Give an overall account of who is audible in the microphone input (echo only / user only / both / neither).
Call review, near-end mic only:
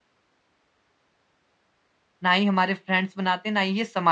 user only